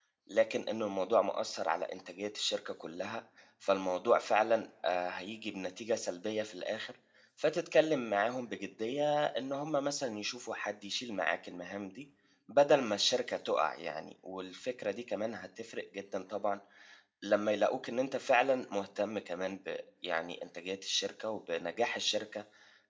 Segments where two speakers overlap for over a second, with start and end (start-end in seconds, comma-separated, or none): none